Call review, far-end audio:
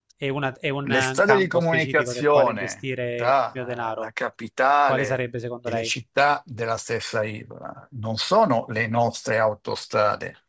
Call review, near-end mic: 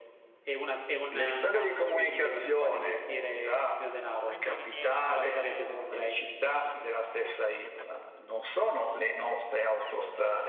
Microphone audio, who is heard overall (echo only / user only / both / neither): both